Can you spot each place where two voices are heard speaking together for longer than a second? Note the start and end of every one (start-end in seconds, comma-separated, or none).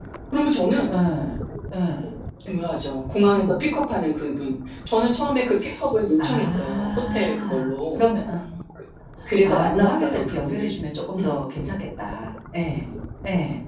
6.2-8.0, 9.4-10.7